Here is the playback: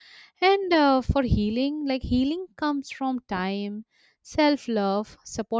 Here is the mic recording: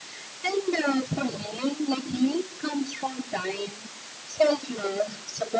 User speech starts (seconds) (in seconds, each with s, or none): none